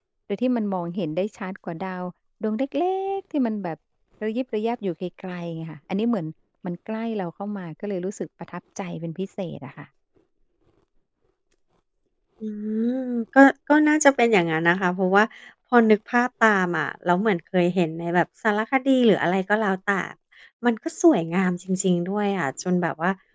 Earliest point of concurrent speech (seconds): none

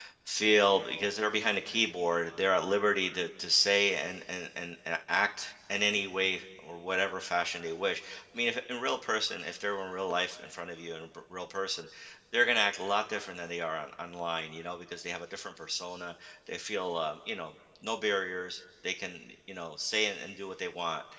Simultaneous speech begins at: none

